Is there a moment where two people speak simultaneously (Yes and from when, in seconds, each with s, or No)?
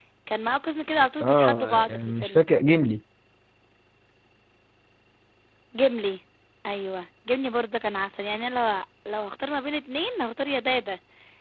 Yes, from 1.2 s